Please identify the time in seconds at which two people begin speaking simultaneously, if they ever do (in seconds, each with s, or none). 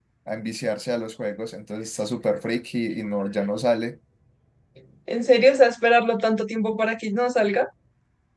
none